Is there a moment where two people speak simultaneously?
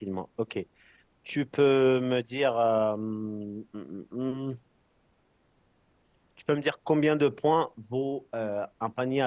No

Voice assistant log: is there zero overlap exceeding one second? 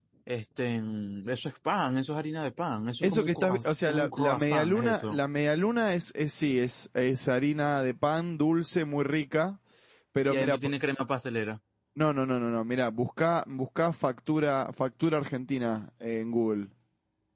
No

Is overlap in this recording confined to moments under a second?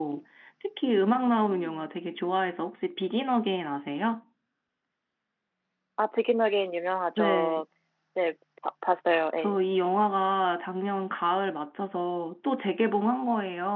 Yes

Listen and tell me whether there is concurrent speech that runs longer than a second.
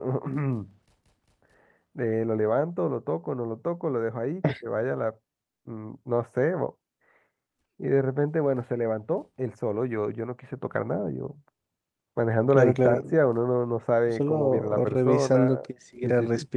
Yes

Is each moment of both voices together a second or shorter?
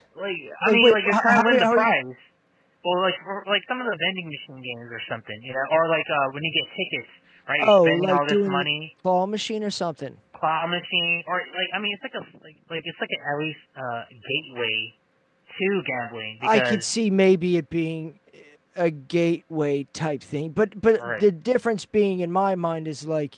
No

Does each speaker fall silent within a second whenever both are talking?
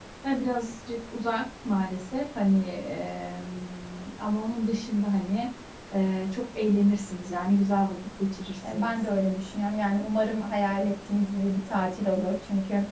Yes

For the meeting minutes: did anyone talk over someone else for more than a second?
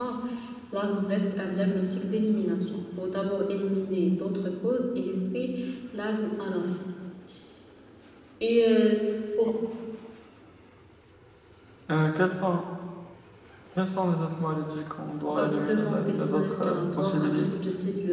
Yes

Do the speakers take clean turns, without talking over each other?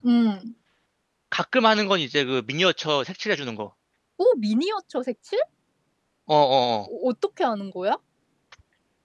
Yes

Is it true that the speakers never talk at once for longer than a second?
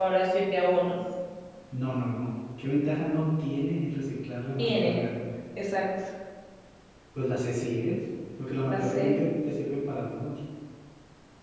Yes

